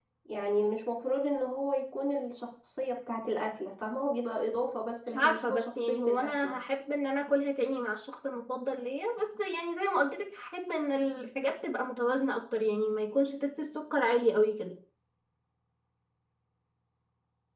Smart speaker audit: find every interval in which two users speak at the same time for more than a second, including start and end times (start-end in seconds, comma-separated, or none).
5.2-6.5